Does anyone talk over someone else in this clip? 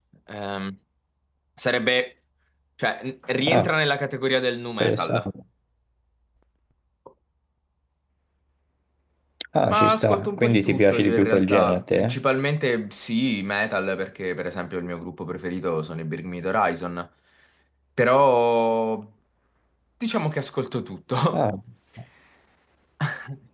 Yes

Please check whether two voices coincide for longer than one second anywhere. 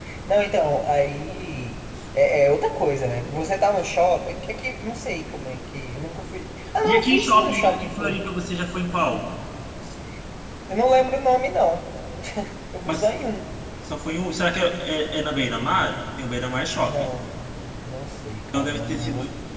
Yes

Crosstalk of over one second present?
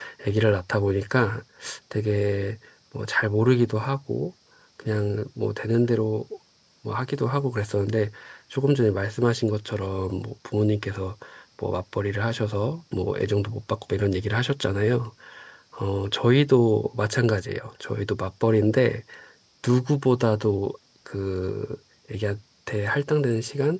No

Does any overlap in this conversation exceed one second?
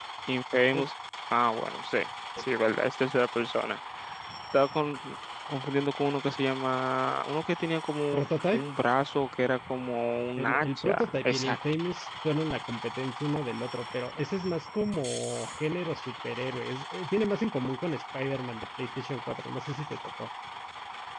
Yes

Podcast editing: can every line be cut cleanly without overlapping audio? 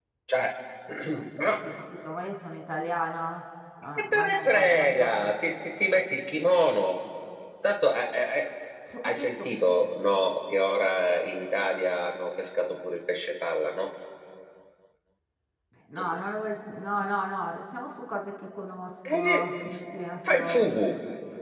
No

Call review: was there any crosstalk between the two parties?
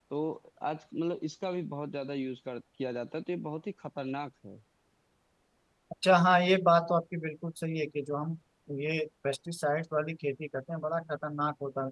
No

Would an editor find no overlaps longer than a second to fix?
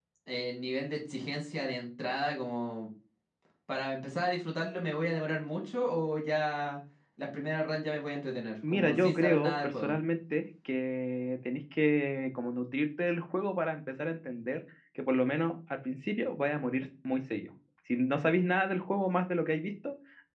No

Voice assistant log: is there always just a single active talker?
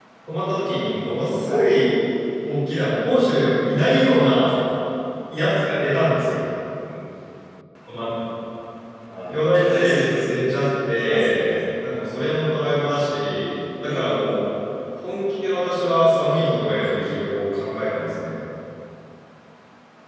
No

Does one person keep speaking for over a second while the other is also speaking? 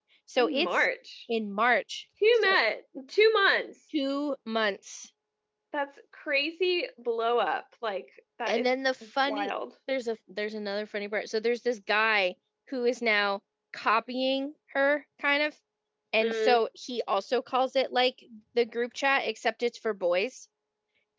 No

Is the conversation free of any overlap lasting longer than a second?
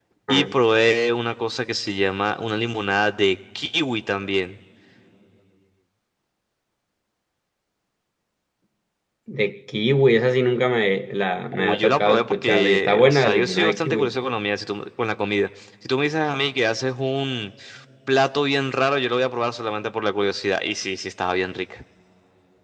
No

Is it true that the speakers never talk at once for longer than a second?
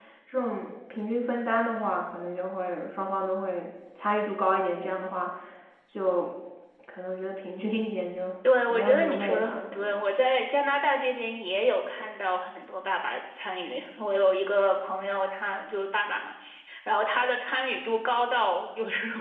No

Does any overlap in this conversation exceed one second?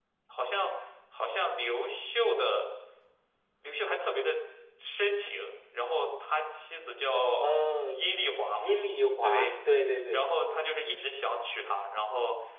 No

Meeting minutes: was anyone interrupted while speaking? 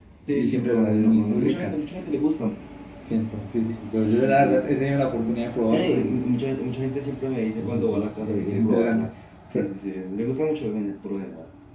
Yes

